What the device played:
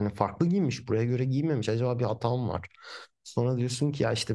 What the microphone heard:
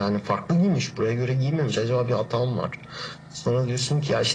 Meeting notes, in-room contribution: none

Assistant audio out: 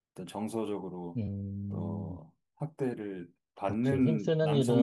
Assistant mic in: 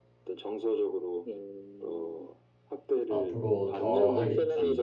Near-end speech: present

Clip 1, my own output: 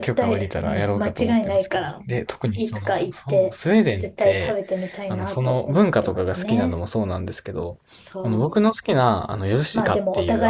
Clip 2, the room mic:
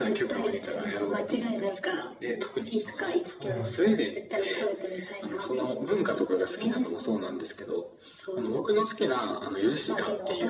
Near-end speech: present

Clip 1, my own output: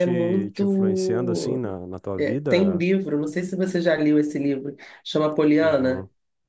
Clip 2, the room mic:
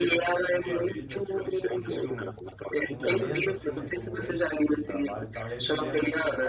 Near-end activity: present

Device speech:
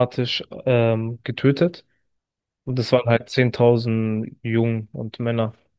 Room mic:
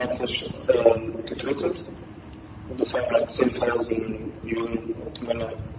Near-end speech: none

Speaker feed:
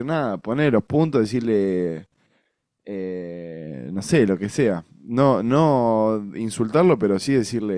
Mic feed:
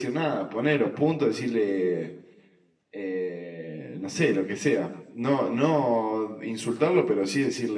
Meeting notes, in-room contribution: none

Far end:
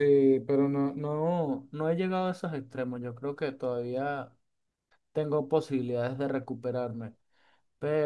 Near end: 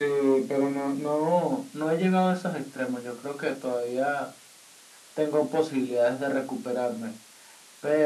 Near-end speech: none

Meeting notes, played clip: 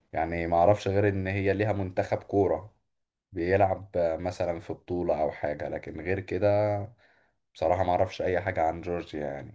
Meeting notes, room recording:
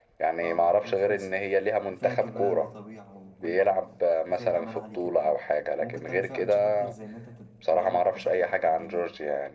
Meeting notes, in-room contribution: present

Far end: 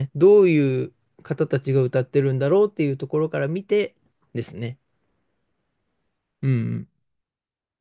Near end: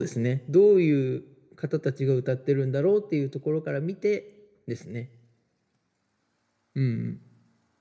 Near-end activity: none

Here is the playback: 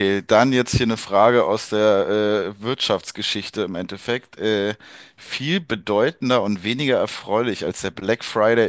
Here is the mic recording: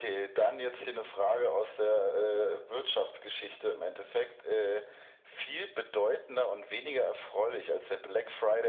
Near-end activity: none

